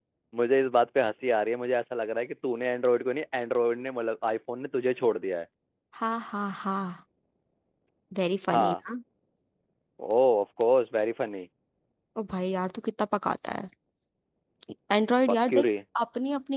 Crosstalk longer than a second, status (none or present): none